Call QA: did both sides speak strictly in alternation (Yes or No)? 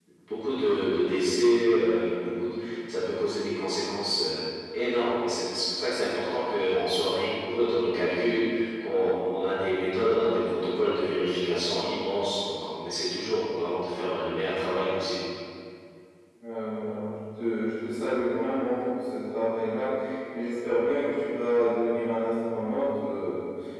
Yes